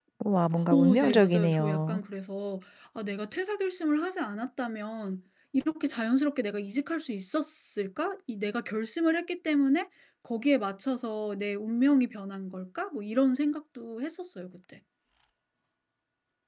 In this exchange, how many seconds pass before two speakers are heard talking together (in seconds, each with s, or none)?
0.7 s